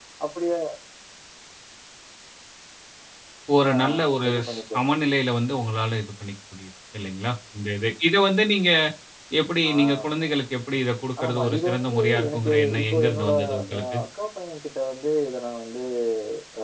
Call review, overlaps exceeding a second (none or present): present